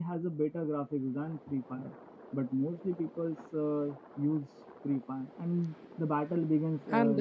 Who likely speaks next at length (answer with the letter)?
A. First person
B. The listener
B